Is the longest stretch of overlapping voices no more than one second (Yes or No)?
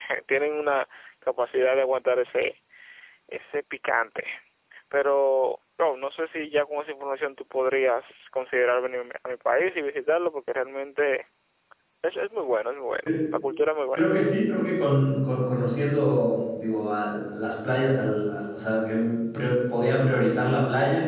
Yes